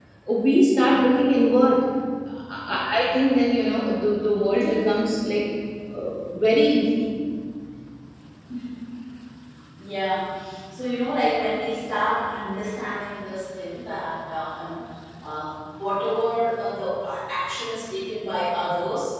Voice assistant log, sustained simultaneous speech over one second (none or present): none